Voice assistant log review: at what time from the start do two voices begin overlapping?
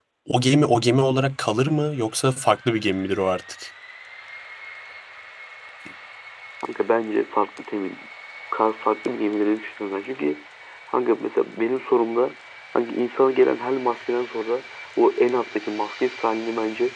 none

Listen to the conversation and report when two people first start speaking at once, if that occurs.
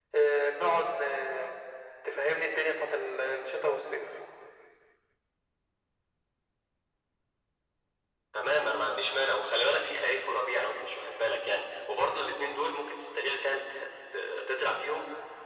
none

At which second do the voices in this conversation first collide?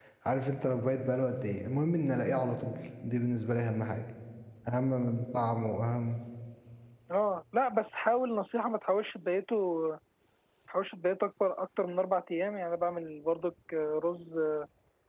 none

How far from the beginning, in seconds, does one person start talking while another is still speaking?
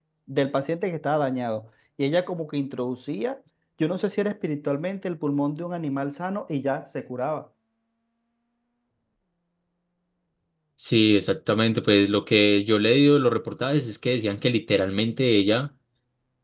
none

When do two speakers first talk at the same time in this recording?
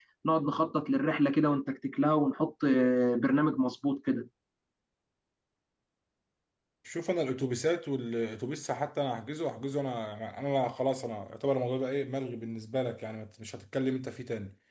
none

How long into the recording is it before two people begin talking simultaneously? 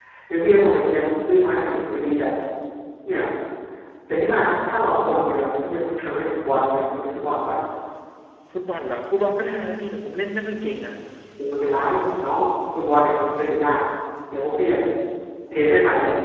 none

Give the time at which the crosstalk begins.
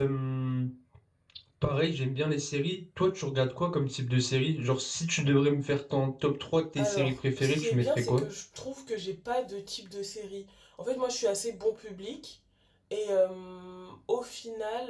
6.8 s

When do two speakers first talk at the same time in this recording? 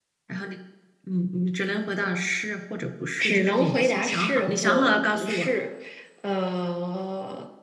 3.2 s

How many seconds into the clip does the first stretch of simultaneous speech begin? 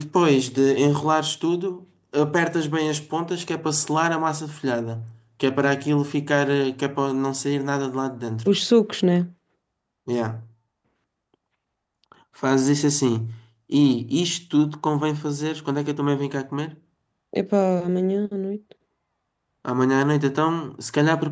none

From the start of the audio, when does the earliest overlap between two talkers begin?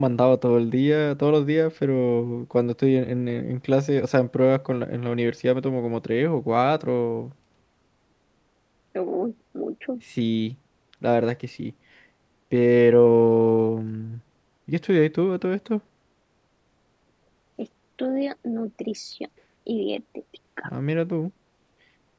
none

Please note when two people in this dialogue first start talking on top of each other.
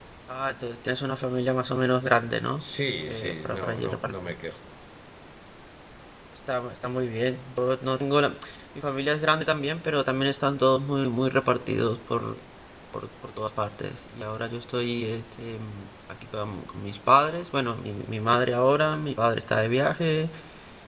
3.1 s

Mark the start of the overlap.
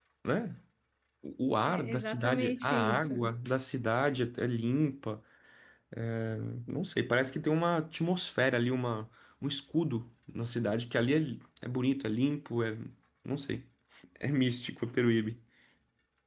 1.6 s

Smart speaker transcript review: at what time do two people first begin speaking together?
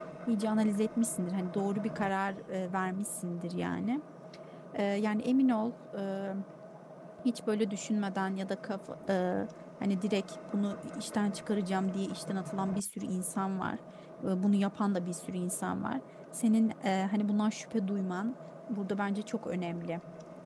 none

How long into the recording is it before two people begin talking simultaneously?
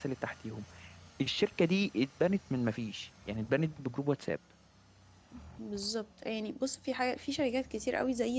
none

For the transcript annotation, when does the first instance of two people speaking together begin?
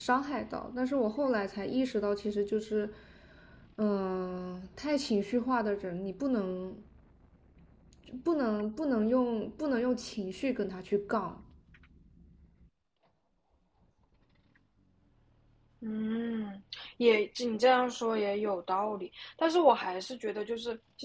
none

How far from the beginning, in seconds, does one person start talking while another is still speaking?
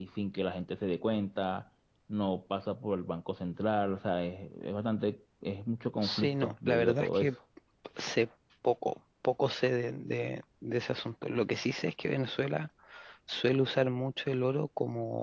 6.0 s

